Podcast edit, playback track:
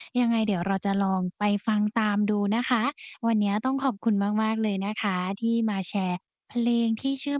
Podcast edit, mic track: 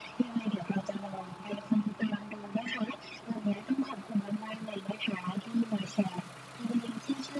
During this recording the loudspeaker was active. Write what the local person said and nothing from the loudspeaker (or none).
none